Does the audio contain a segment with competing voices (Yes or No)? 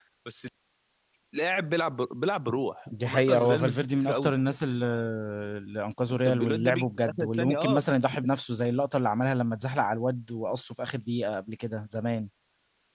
Yes